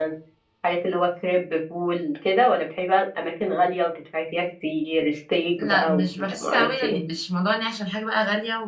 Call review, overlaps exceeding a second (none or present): present